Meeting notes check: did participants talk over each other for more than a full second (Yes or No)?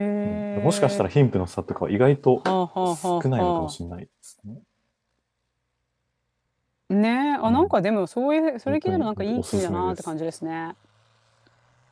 Yes